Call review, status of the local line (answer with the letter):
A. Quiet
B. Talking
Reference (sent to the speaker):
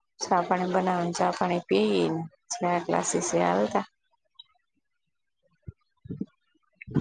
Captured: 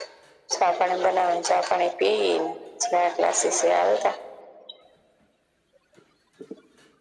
A